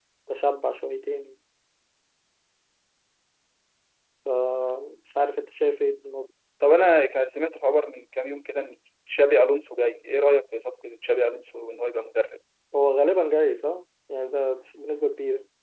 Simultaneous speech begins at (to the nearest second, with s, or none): none